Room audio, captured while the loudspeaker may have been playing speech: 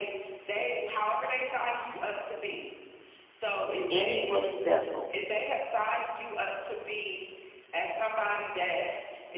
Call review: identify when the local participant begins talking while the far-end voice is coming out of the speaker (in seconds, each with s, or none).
3.9 s